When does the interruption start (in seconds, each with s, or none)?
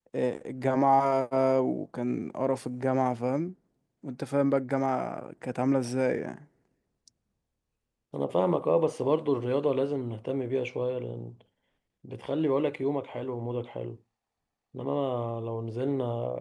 none